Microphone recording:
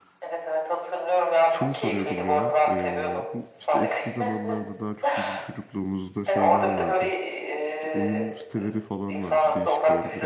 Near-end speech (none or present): present